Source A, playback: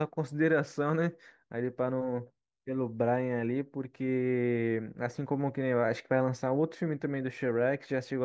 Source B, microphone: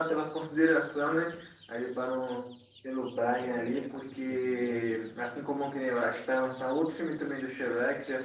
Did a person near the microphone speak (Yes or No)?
Yes